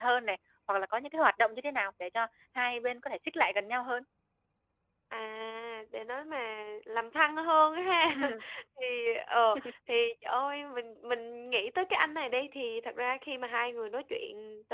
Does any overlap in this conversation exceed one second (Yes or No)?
No